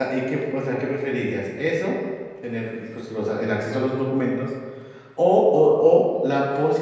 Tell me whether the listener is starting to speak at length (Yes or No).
No